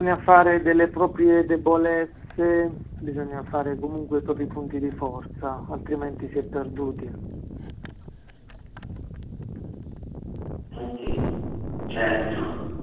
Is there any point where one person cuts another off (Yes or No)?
No